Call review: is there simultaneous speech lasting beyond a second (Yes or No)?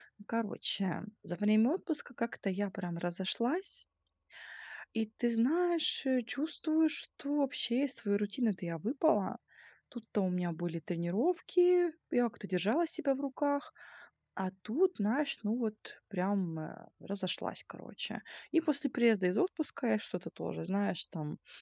No